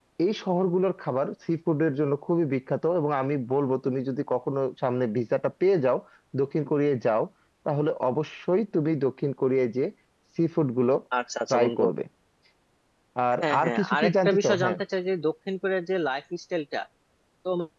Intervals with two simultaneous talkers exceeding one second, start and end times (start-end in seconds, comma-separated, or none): 13.4-14.8